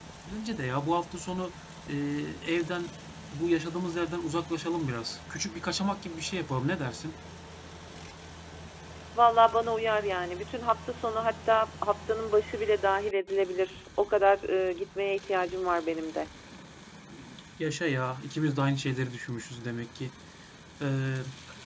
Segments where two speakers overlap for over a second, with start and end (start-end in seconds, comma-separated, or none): none